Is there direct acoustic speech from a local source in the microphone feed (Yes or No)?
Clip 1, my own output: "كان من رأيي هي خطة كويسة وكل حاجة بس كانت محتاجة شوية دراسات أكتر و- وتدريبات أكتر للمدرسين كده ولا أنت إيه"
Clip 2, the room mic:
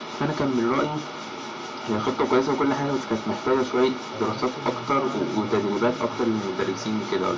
Yes